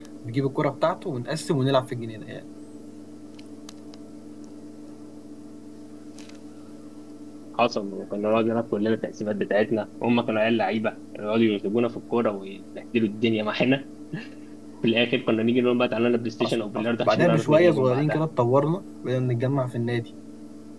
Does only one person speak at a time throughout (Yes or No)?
No